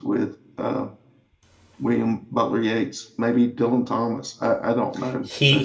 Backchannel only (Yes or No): No